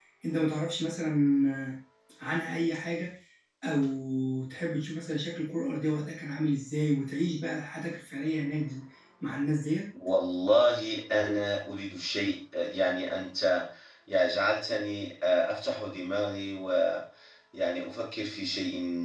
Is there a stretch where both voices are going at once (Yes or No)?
No